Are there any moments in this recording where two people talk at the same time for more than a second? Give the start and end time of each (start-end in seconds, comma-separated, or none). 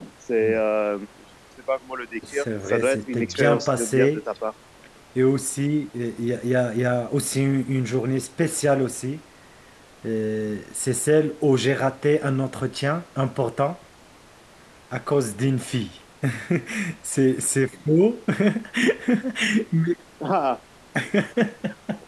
2.3-4.2